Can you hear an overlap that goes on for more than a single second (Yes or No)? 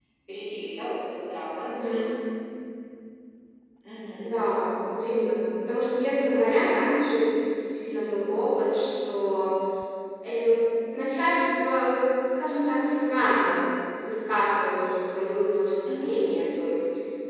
No